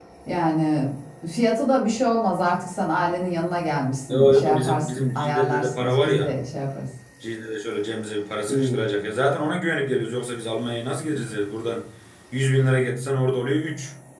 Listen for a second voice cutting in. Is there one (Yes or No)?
Yes